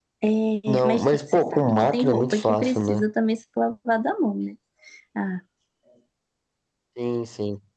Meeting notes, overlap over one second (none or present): present